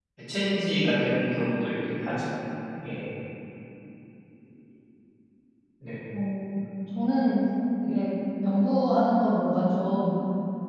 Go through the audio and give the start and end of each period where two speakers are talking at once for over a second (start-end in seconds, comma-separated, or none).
none